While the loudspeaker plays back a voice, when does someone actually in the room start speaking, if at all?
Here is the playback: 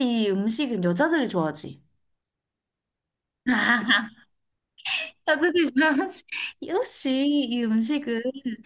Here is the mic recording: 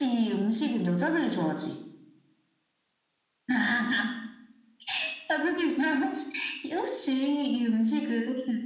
none

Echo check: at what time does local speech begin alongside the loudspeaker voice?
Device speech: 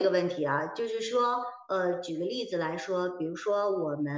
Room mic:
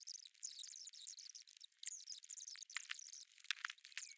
none

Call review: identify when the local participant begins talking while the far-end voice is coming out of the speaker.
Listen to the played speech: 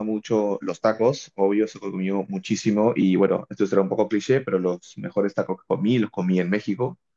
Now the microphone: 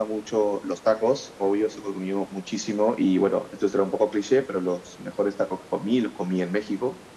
none

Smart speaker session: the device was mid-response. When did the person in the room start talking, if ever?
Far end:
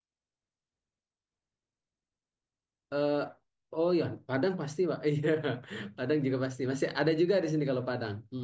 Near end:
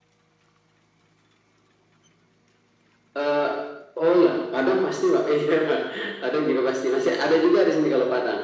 none

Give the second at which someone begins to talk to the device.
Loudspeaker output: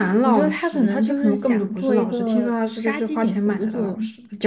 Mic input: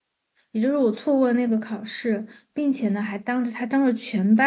0.5 s

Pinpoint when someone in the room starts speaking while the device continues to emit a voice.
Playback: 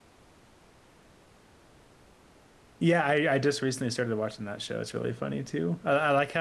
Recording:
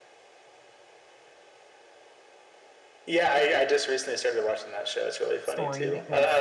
5.4 s

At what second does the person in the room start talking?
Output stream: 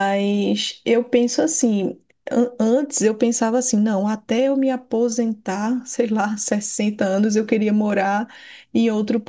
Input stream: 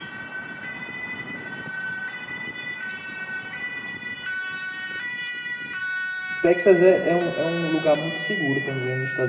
6.4 s

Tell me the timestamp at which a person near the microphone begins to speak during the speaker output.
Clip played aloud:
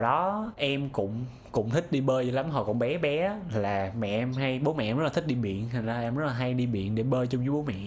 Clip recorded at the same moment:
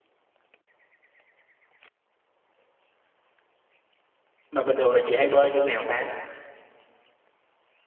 4.5 s

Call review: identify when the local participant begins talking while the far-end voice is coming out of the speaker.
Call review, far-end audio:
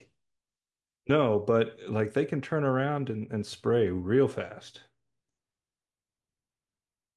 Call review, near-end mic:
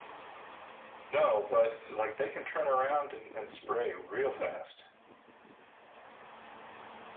none

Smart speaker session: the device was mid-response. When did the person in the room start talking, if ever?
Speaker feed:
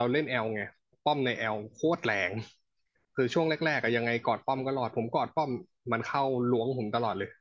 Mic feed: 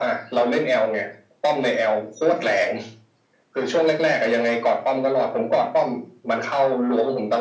none

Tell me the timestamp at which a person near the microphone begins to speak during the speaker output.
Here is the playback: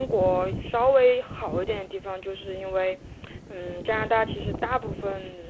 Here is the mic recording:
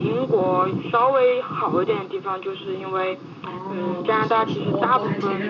3.4 s

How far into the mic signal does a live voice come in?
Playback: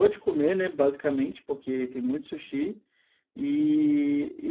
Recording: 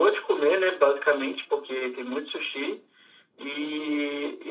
none

